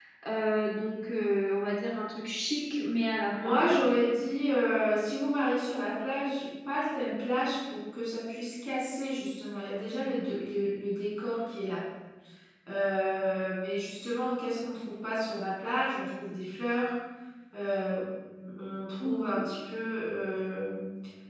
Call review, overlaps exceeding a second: none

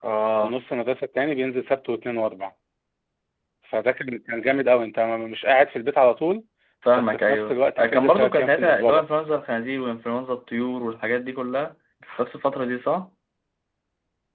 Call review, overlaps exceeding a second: present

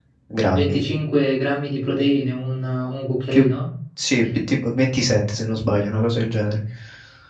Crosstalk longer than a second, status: none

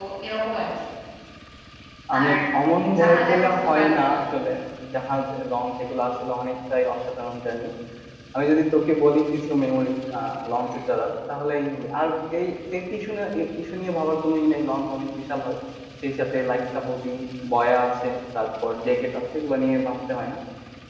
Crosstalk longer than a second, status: present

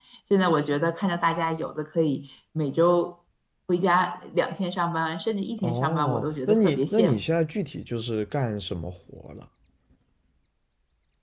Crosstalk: present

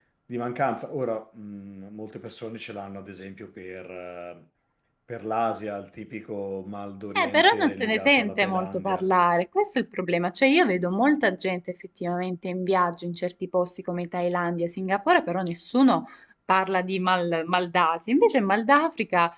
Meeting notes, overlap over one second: present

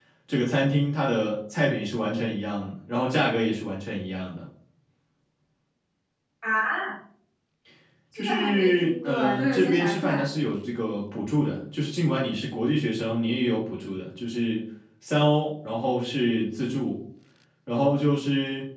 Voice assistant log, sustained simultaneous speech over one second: present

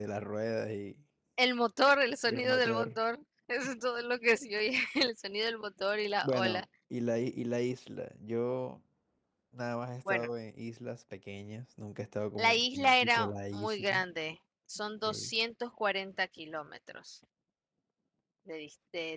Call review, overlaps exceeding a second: present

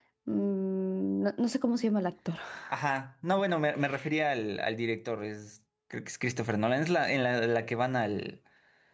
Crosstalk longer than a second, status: none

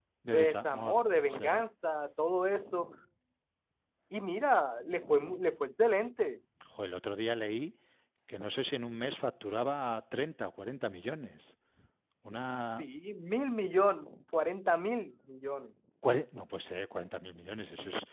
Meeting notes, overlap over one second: present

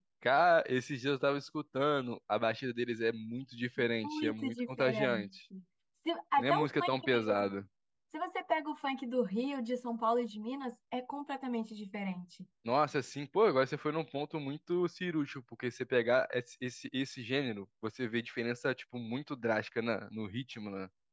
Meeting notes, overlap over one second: present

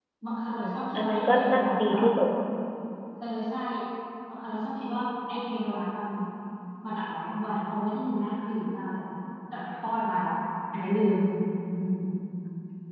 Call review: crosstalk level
present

